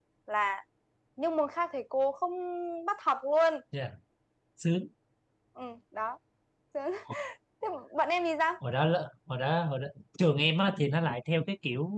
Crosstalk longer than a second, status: none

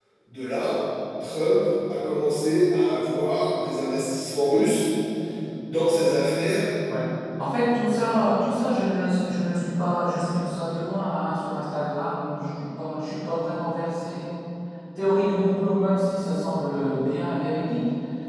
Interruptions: none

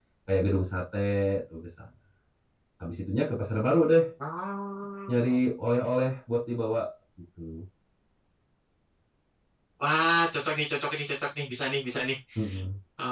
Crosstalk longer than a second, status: none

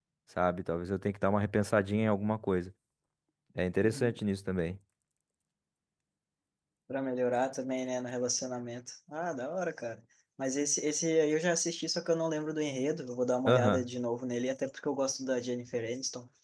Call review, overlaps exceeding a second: none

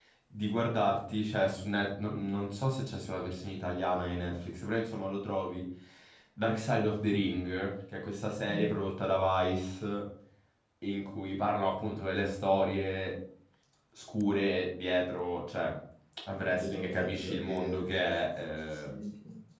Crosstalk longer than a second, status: present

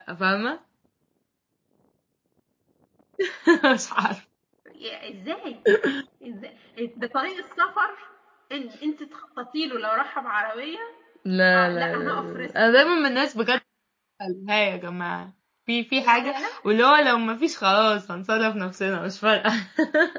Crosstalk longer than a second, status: present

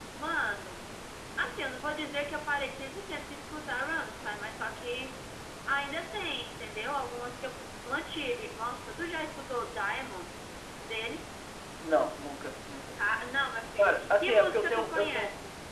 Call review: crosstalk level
present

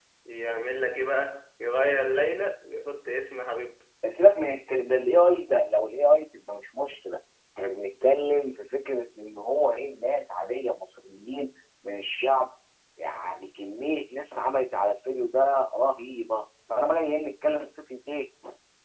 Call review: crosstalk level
none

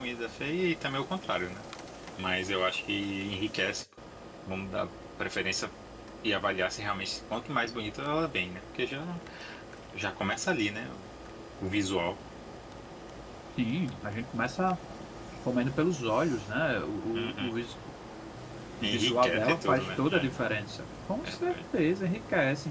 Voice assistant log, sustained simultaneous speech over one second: present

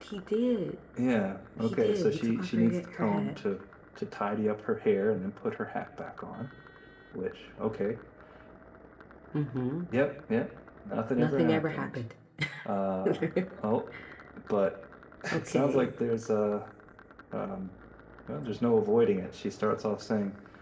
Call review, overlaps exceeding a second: present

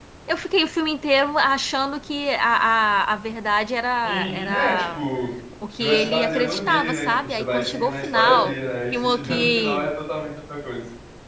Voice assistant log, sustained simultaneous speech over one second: present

